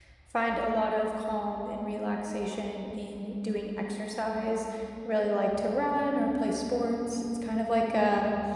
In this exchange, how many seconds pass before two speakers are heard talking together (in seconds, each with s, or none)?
none